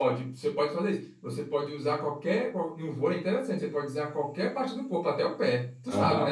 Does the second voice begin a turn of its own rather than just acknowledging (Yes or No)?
Yes